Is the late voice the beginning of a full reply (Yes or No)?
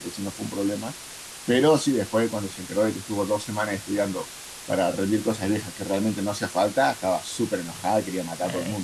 Yes